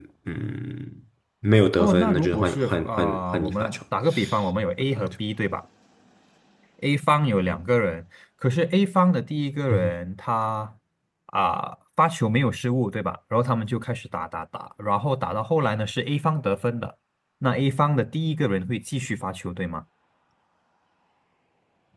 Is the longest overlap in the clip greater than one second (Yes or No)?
Yes